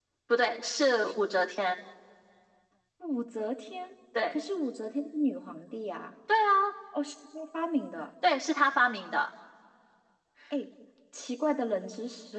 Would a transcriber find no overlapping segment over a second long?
Yes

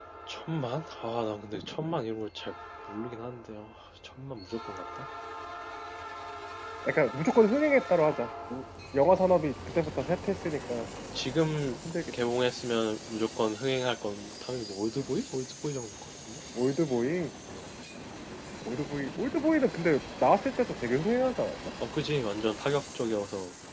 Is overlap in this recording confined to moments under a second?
Yes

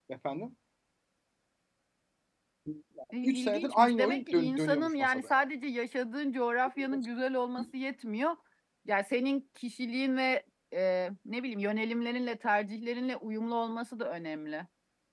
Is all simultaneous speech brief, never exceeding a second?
No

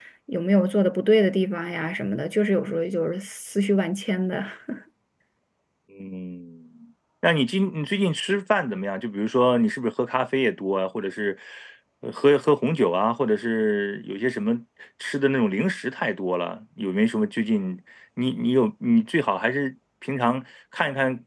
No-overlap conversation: Yes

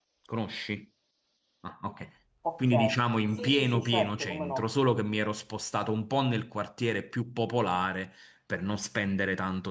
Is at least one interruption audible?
Yes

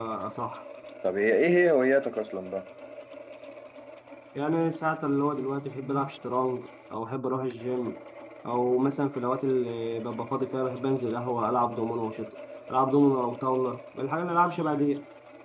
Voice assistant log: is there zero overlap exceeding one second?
Yes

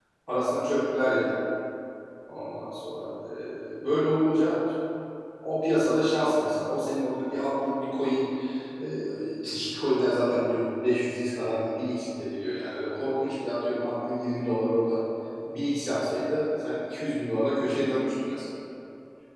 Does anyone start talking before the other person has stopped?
No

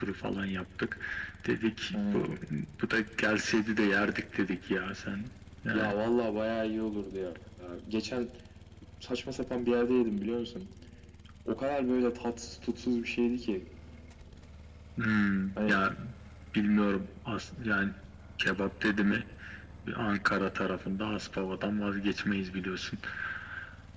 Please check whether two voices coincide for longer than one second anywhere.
No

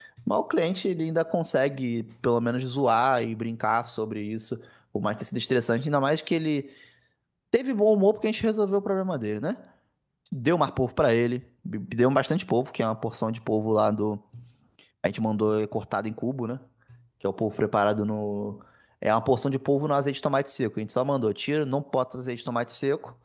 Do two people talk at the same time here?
No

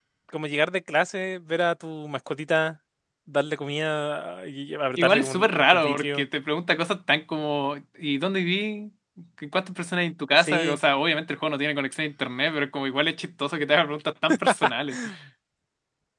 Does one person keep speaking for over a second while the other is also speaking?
Yes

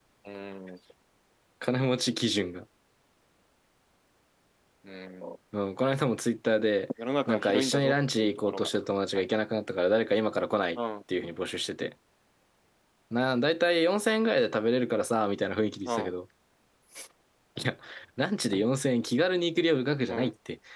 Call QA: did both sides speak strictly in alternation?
No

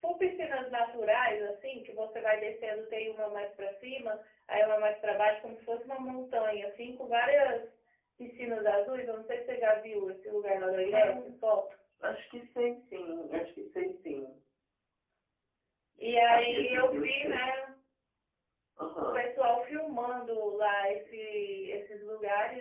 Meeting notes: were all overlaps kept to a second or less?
No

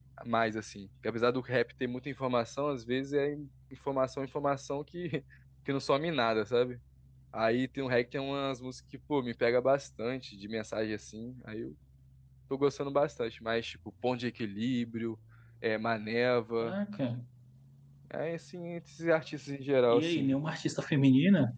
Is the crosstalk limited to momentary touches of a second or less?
Yes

